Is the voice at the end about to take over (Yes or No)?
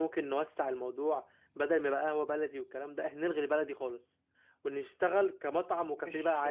Yes